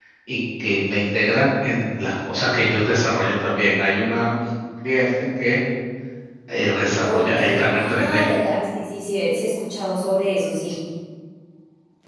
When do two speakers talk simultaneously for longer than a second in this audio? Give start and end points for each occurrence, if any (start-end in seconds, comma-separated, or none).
7.0-8.2